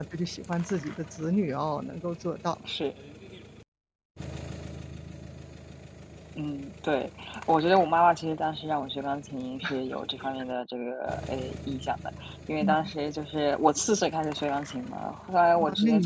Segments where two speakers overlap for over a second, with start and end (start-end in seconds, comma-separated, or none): none